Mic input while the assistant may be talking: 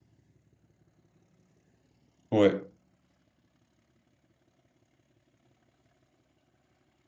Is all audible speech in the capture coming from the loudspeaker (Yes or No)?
No